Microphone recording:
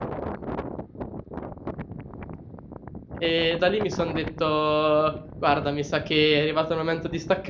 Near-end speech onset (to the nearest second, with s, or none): 3 s